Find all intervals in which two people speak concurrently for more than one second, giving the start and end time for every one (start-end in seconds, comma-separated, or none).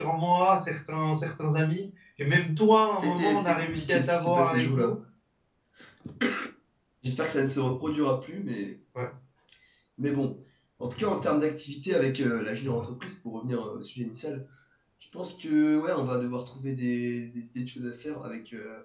2.9-5.0